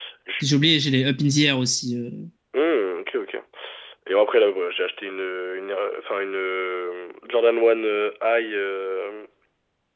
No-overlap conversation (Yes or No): Yes